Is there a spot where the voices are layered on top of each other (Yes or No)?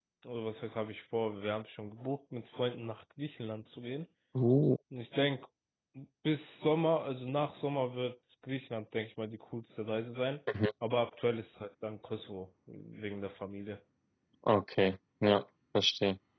No